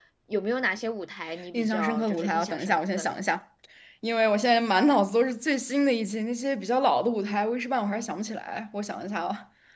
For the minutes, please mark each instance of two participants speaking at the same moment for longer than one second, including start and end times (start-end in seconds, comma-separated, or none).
1.5-3.1